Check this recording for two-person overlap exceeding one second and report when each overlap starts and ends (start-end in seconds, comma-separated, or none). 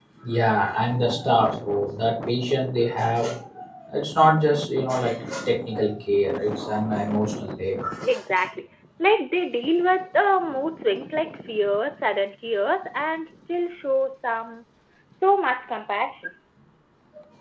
none